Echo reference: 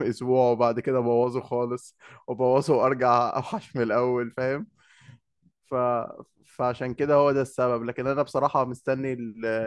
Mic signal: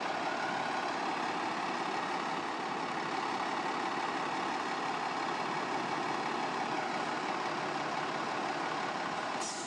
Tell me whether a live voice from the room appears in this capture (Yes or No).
No